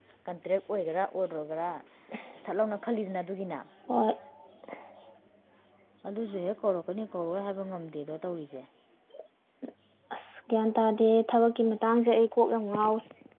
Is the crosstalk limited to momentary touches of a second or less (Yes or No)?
Yes